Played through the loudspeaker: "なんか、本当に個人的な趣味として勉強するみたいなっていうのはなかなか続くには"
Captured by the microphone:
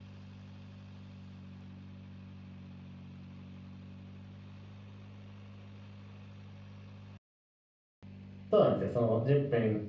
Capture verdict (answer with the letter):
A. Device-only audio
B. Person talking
B